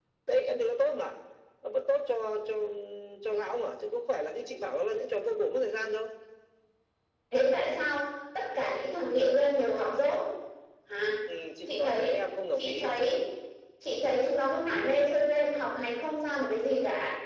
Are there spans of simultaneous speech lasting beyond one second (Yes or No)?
No